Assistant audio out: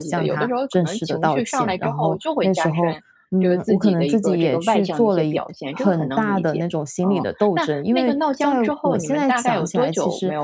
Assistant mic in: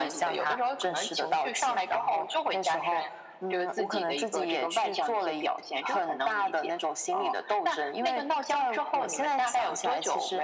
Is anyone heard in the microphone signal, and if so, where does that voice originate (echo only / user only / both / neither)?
echo only